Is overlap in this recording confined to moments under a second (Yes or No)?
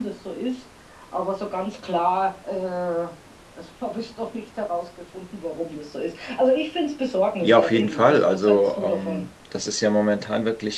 No